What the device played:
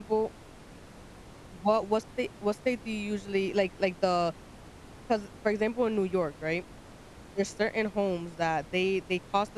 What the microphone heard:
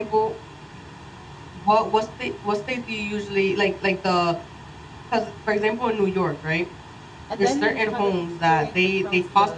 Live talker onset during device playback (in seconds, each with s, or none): 7.3 s